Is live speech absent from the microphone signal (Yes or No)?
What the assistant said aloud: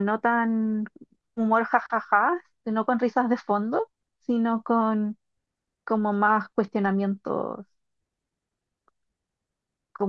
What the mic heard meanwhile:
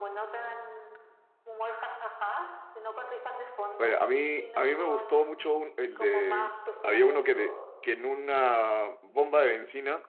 No